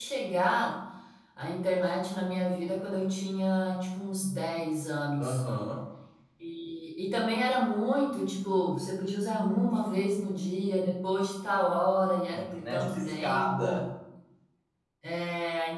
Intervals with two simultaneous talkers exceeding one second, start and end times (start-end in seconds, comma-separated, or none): 12.3-13.8